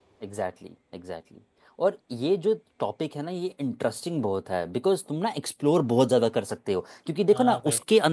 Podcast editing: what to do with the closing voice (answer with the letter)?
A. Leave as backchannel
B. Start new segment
A